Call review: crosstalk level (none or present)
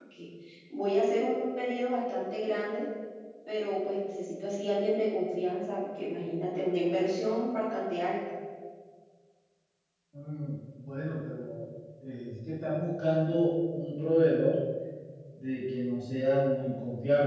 none